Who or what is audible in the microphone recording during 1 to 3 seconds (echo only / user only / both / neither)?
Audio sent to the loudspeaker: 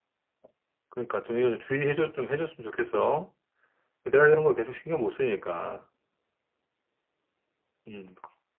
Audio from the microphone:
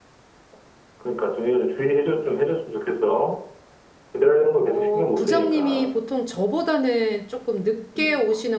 echo only